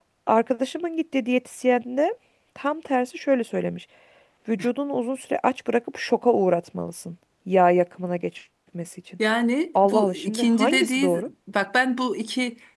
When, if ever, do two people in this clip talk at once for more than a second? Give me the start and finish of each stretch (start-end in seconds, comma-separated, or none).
9.8-11.3